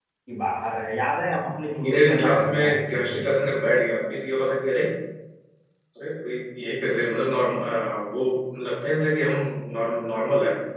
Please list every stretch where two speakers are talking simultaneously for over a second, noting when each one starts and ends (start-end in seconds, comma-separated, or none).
1.8-3.2